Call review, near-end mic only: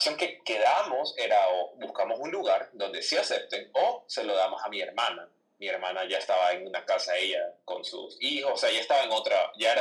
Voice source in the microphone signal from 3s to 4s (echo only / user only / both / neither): echo only